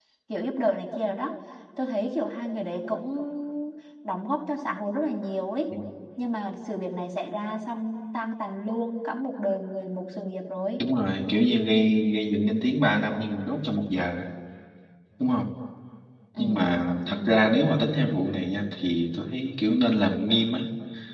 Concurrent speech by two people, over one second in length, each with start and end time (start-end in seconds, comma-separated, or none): none